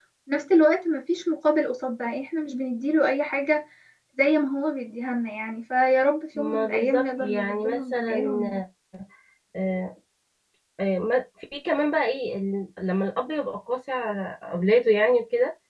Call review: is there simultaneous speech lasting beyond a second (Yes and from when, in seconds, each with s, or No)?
Yes, from 6.4 s